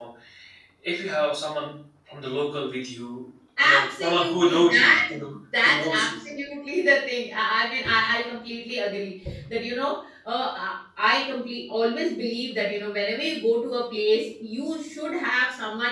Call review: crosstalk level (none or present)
present